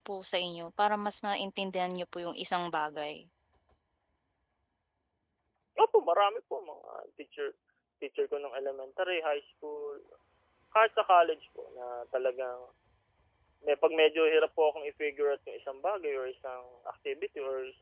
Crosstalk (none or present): none